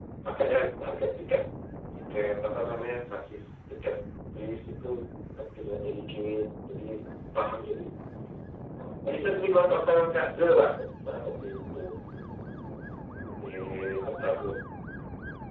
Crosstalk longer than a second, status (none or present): none